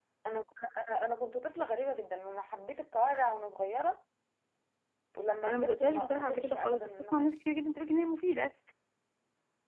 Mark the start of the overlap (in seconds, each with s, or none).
5.5 s